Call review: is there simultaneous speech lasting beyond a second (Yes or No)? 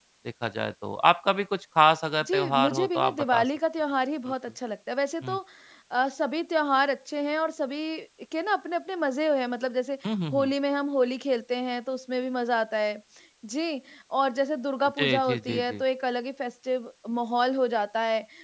Yes